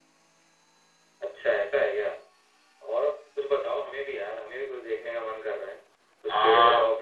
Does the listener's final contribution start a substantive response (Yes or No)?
No